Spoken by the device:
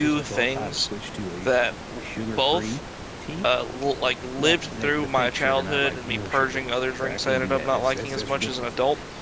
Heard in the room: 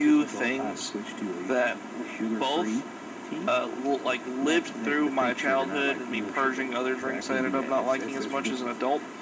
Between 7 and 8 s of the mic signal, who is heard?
echo only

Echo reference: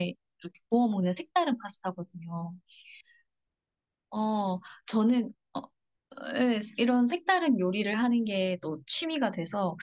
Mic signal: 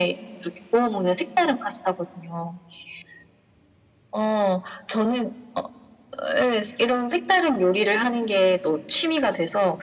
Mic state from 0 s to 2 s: echo only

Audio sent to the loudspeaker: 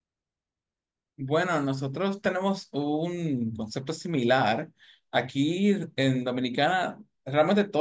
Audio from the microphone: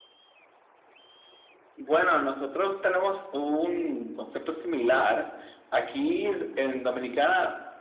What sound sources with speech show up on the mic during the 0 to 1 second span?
neither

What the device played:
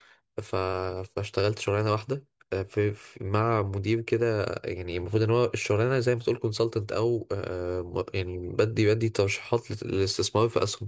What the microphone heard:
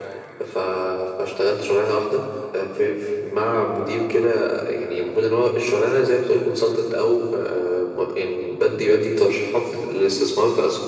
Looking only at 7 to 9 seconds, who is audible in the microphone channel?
echo only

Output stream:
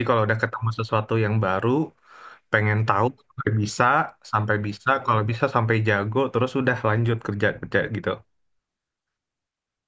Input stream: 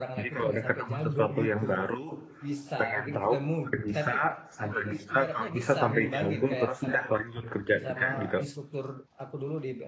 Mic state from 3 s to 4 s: both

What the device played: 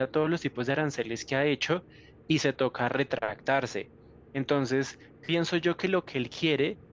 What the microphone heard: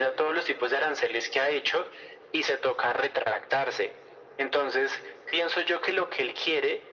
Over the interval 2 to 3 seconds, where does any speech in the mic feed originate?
echo only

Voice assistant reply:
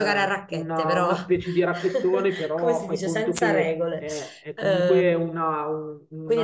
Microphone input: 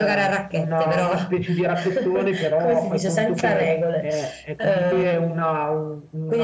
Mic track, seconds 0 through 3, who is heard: echo only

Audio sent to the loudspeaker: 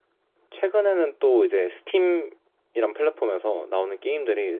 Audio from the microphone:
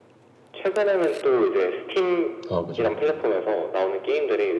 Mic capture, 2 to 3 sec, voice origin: both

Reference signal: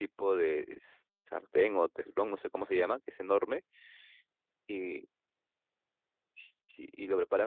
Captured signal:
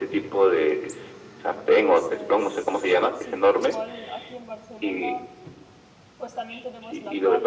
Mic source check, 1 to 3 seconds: both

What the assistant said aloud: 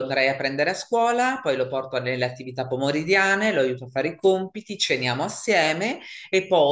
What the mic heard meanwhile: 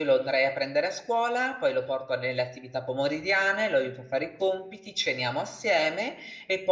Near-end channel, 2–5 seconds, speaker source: echo only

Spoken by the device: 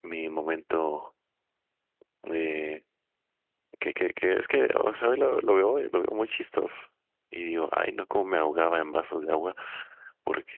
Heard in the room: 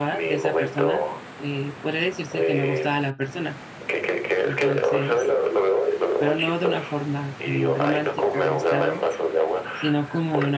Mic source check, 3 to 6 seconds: both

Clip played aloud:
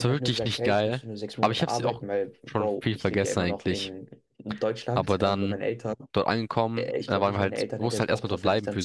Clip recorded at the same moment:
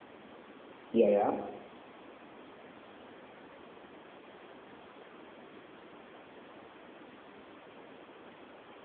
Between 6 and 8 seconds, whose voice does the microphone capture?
neither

